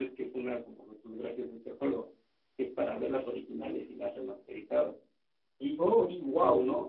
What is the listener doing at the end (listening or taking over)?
listening